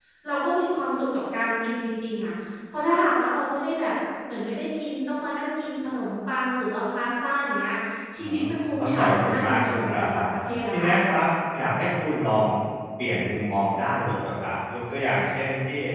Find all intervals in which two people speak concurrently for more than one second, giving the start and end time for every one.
8.8-10.2

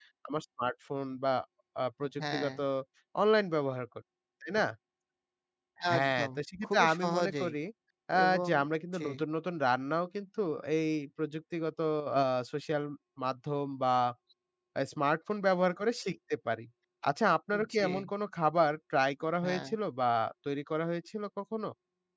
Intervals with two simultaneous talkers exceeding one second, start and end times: 6.0-7.5

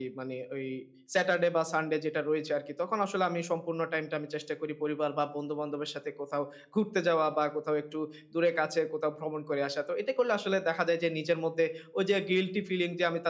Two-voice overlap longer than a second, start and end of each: none

